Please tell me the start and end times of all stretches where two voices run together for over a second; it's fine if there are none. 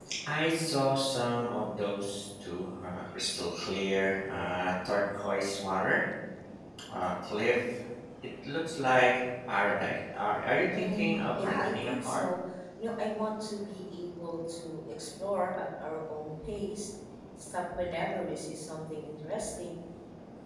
10.7-12.2

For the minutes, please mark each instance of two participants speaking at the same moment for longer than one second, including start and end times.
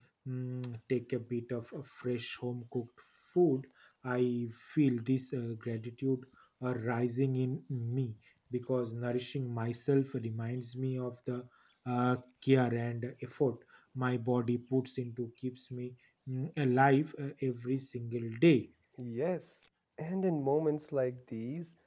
none

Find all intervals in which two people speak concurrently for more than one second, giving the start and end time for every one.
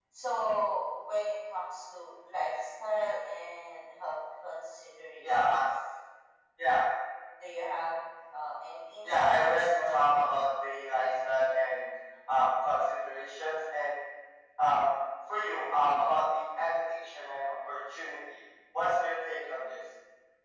9.0-10.3

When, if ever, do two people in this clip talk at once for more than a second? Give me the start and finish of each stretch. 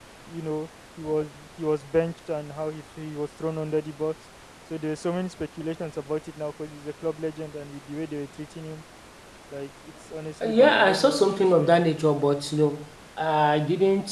10.4-11.7

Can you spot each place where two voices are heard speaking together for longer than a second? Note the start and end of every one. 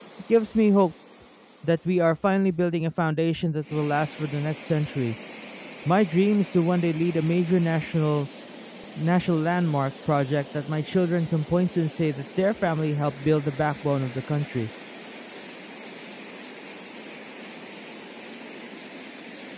none

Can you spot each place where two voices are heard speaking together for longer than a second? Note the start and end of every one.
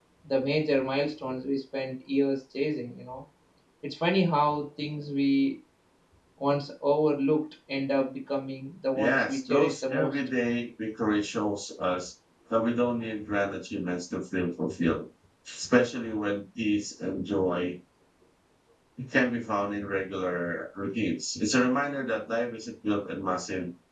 9.0-10.2

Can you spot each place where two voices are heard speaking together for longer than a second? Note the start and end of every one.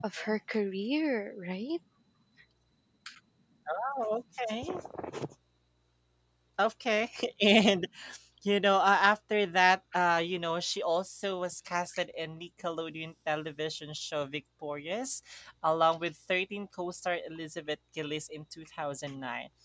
none

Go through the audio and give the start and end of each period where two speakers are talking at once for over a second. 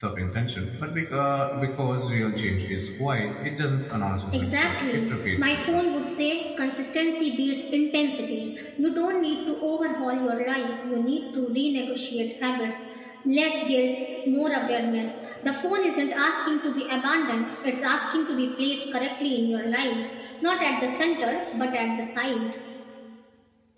4.3-5.8

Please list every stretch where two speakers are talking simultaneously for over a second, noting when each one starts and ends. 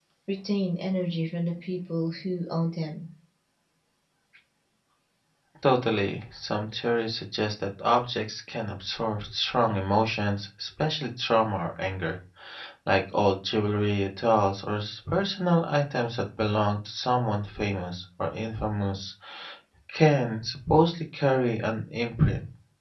none

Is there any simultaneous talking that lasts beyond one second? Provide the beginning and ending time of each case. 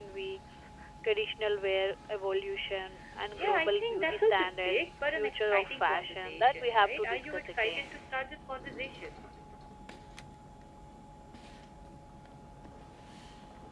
3.4-7.9

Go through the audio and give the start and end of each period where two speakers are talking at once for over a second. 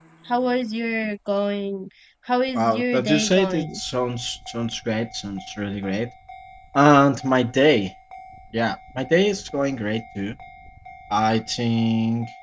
2.6-3.8

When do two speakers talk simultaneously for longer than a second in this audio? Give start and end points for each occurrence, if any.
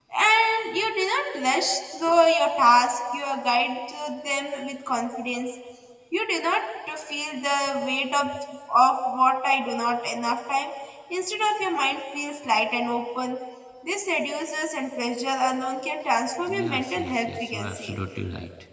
16.6-17.9

